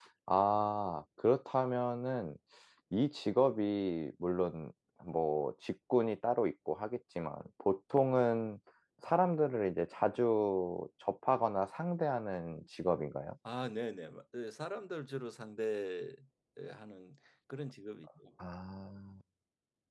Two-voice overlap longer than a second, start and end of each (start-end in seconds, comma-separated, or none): none